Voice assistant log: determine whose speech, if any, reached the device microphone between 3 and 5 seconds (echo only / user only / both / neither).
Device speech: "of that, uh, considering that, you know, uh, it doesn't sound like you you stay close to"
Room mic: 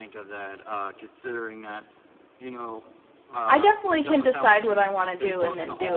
both